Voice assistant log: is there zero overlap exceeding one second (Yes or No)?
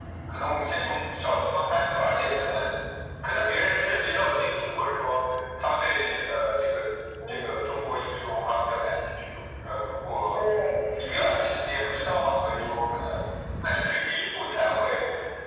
Yes